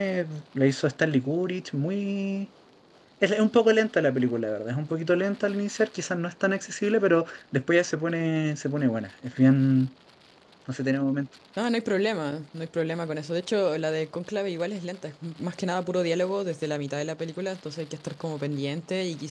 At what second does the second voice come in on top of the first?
none

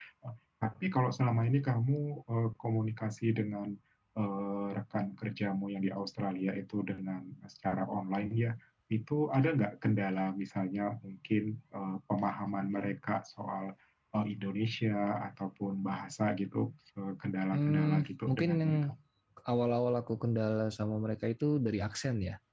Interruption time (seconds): 17.5 s

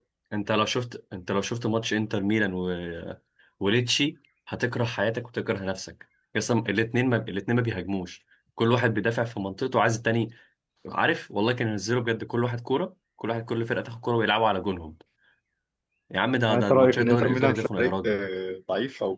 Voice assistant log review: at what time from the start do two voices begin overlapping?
16.5 s

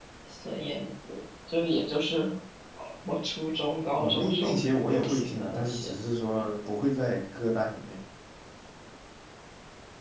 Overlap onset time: 4.0 s

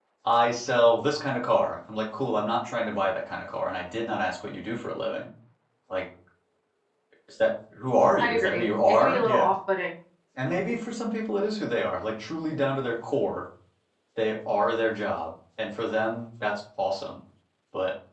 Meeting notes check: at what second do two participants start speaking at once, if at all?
8.2 s

